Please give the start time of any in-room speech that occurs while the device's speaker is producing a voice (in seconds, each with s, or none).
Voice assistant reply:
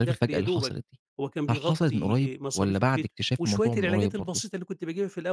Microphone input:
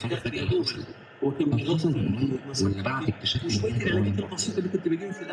none